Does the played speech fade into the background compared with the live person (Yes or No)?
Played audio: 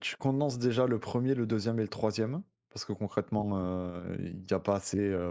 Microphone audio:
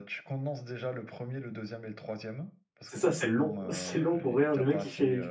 Yes